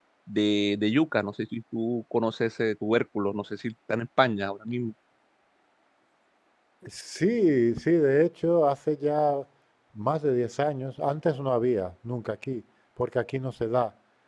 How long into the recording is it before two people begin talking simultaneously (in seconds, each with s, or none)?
none